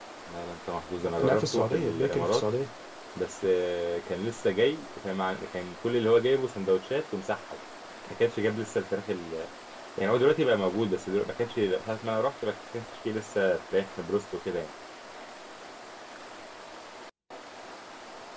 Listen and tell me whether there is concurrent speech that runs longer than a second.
Yes, from 1.0 s

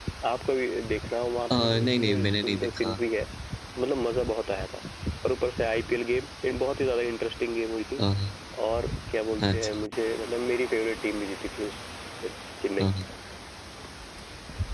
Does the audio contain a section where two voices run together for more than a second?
Yes, from 1.5 s

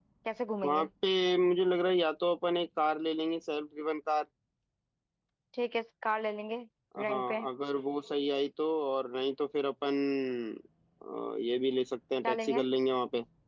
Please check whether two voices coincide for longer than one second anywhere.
No

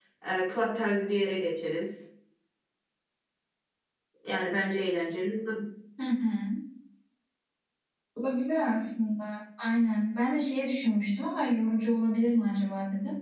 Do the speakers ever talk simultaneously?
No

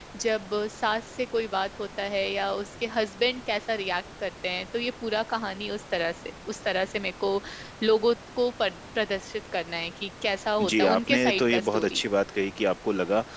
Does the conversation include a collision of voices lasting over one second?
Yes, from 10.6 s

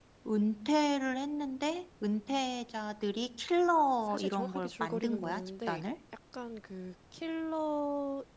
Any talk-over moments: Yes, from 4.1 s

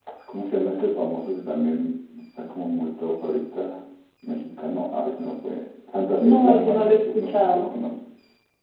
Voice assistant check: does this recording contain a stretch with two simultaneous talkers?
Yes, from 6.2 s

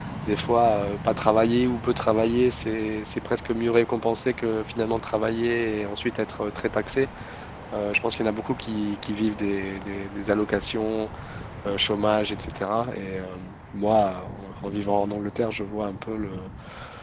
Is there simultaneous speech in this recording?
No

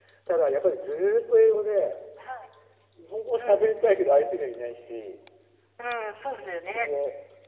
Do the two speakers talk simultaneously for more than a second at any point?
No

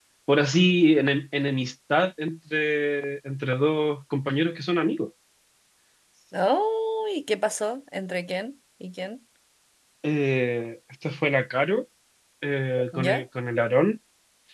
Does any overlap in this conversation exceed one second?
No

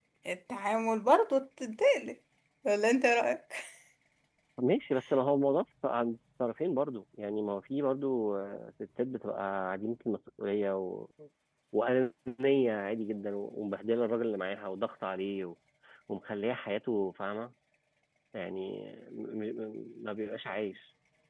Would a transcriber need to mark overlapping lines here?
No

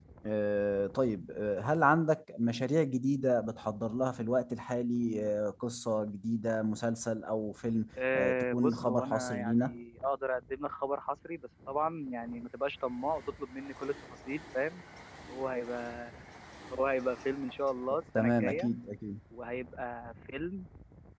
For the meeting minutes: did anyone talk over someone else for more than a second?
Yes, from 8.1 s

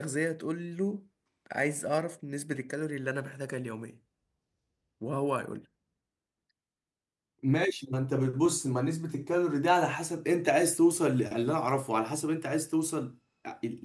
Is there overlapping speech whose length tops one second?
No

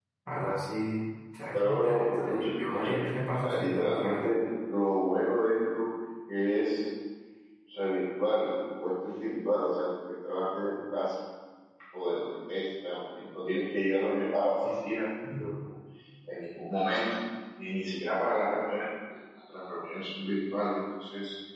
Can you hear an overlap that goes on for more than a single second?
Yes, from 1.5 s

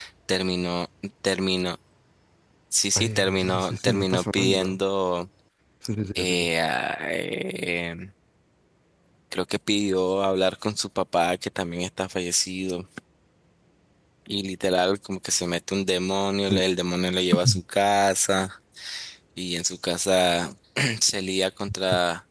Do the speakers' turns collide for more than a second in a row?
Yes, from 3.0 s

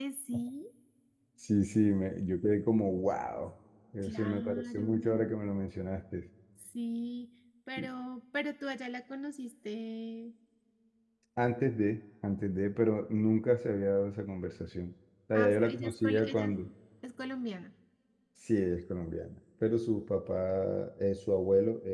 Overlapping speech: Yes, from 4.0 s

